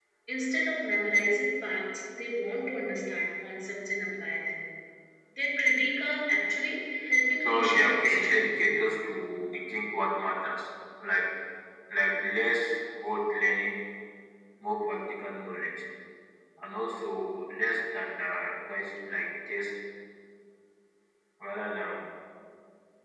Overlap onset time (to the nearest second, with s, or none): 7 s